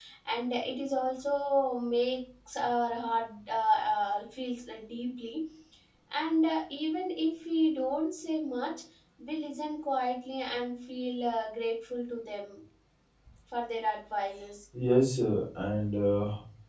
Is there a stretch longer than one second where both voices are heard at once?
No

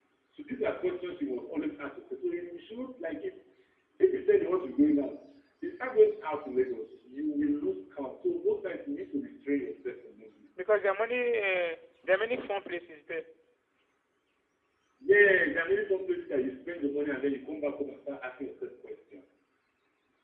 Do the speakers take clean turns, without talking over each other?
Yes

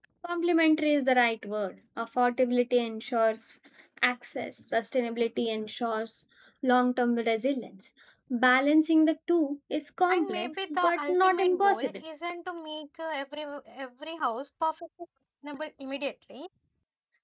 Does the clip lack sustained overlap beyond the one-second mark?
No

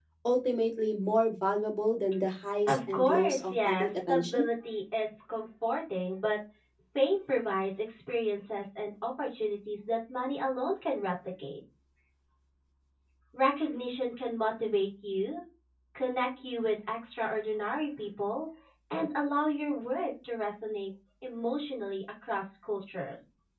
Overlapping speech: Yes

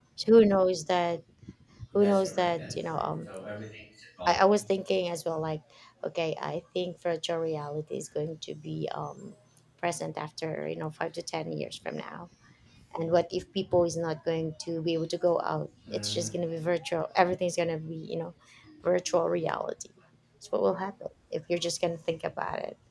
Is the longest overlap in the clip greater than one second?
Yes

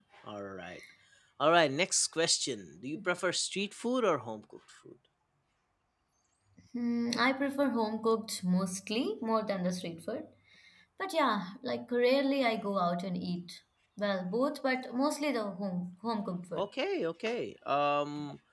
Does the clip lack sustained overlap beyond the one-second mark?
Yes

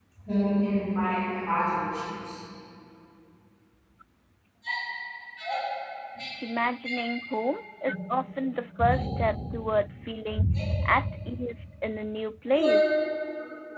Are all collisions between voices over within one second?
Yes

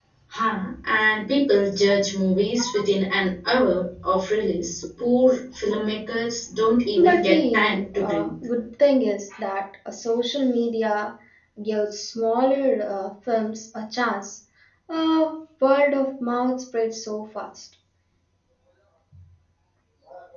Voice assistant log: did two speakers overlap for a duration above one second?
Yes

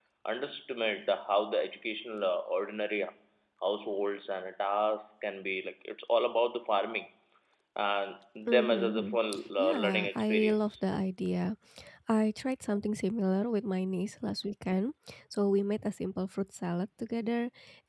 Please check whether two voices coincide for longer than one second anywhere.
Yes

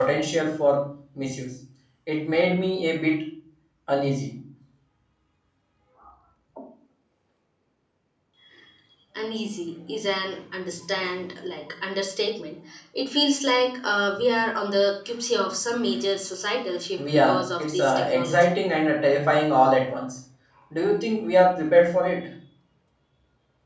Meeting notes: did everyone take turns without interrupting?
No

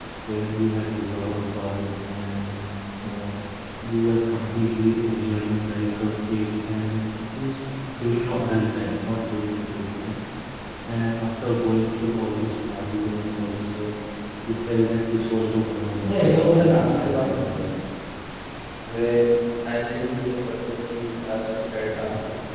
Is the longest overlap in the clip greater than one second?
Yes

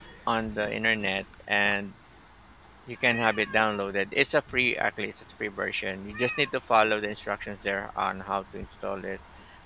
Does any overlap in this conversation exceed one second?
No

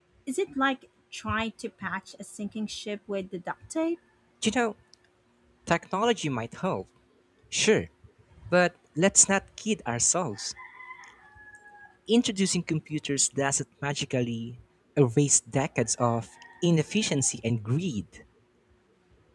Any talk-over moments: No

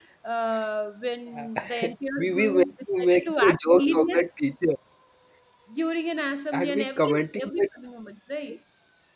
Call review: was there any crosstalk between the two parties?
Yes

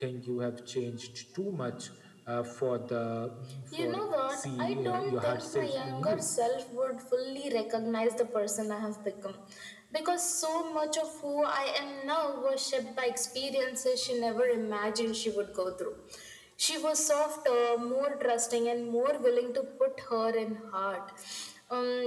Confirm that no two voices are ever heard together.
No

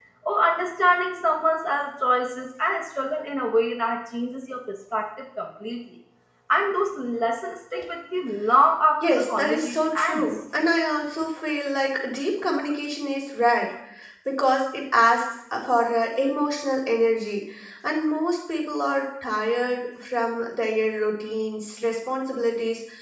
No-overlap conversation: No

